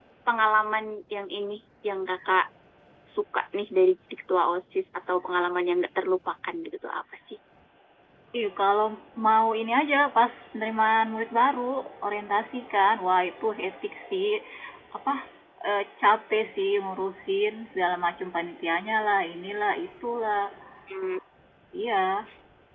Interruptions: none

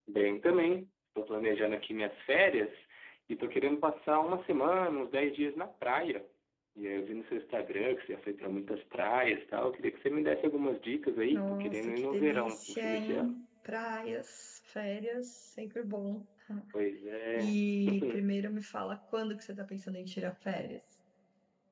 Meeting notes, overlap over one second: present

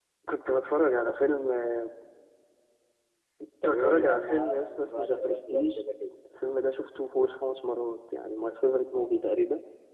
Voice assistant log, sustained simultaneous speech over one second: present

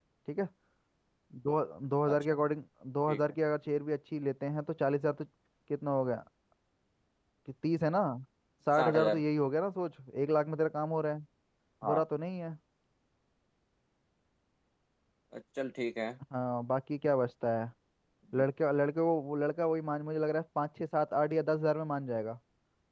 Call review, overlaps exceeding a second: none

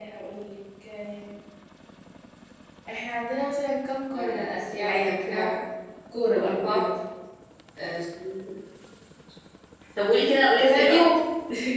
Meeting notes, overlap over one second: present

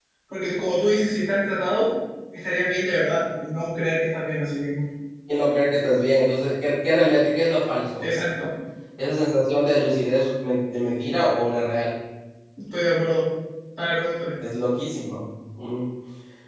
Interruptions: none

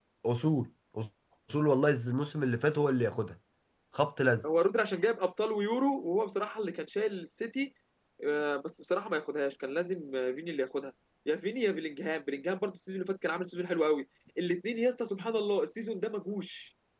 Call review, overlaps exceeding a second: none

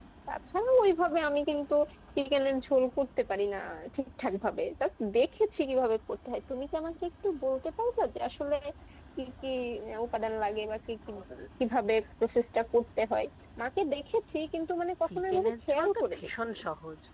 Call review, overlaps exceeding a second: present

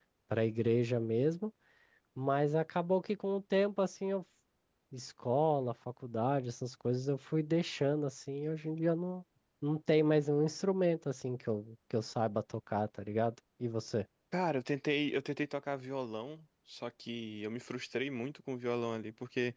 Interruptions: none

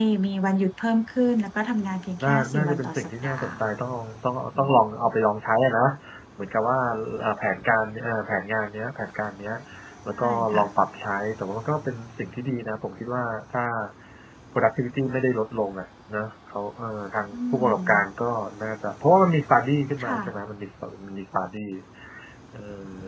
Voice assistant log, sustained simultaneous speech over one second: present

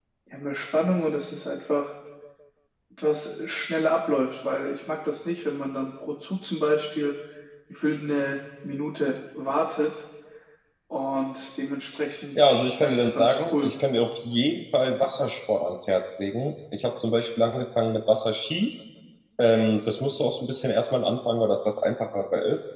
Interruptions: present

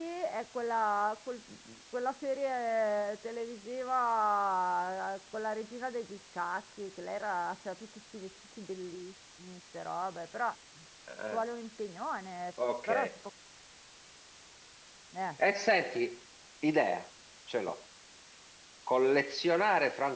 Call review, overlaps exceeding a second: none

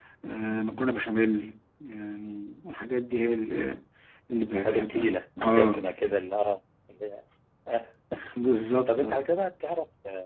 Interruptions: present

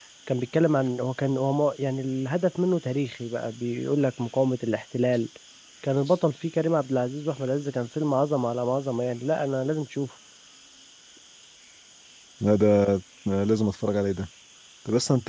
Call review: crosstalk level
none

